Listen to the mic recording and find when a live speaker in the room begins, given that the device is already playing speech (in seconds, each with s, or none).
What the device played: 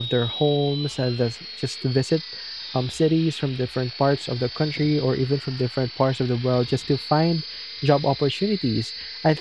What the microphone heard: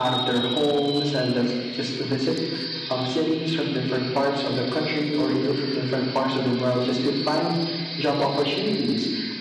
none